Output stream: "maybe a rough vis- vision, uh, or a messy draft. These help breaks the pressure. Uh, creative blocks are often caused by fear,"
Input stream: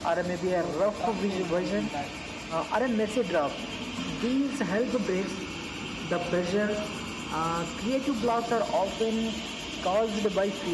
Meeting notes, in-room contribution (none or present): present